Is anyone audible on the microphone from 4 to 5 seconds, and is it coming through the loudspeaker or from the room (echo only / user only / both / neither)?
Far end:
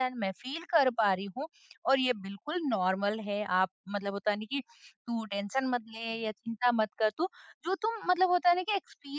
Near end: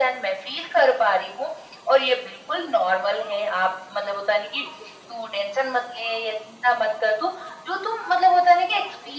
echo only